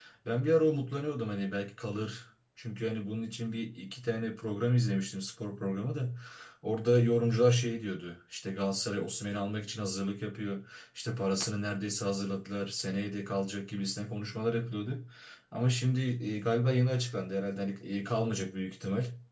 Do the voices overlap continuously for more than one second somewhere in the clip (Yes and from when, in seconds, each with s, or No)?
No